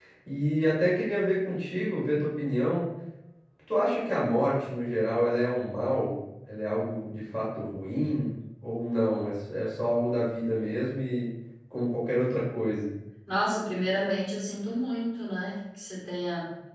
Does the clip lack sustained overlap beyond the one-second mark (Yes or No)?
Yes